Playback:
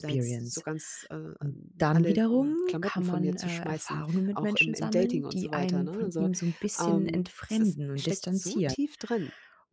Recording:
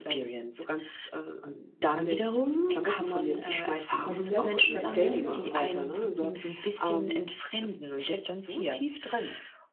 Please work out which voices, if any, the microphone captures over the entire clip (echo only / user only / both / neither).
both